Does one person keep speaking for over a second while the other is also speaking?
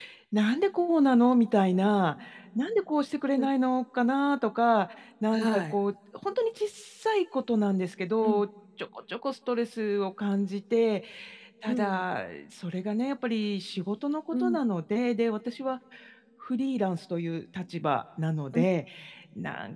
No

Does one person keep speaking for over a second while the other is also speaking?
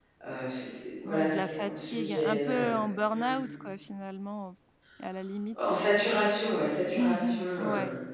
Yes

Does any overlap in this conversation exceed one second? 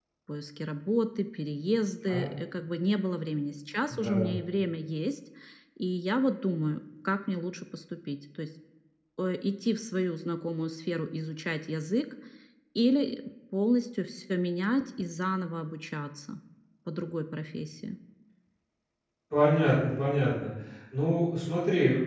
No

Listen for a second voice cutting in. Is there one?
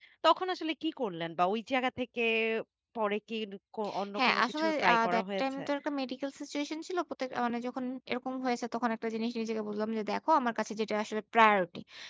Yes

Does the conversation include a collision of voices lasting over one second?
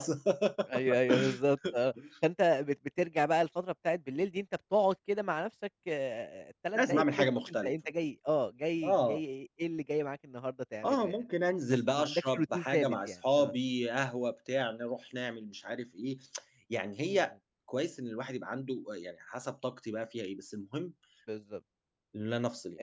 Yes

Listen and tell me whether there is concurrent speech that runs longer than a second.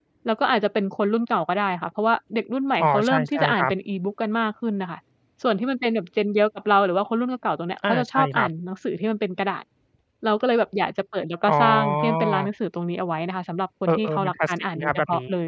Yes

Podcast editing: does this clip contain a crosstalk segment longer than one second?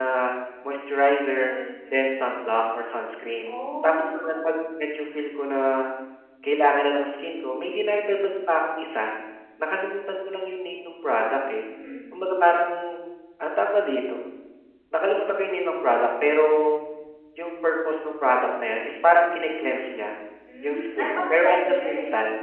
Yes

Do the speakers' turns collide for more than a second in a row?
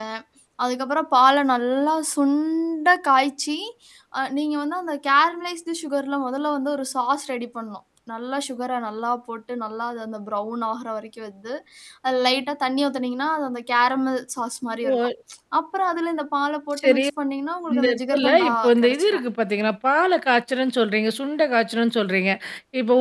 Yes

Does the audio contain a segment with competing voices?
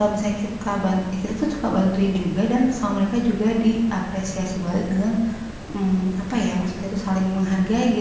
No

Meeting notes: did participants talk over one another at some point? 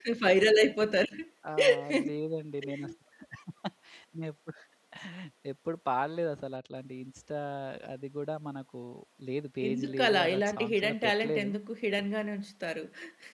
Yes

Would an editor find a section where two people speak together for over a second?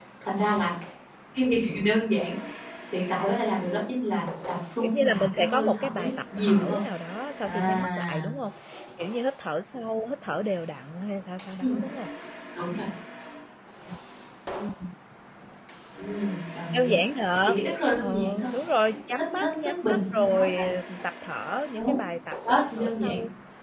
Yes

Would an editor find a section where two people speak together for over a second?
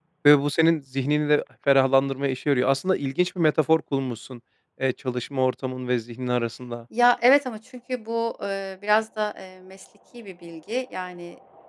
No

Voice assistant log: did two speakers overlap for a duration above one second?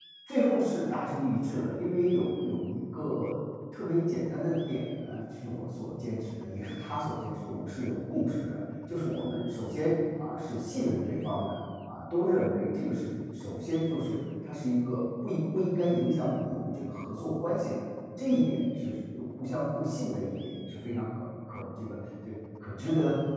No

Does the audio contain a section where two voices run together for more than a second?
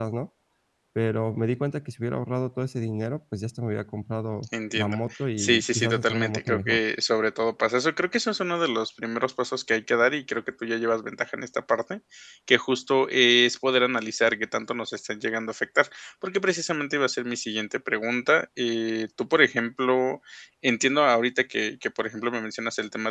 Yes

